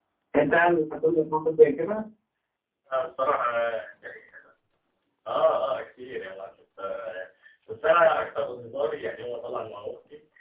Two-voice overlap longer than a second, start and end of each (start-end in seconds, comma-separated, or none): none